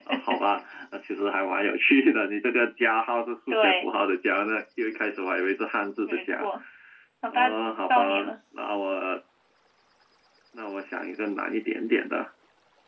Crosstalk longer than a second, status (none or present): none